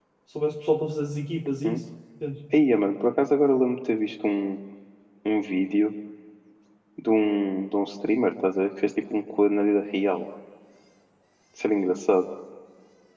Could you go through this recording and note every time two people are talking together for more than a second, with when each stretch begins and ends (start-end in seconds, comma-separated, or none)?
none